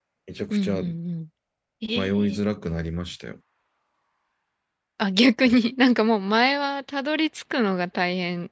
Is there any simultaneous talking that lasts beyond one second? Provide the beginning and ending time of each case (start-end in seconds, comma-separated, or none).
none